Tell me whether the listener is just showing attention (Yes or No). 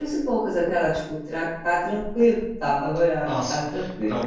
No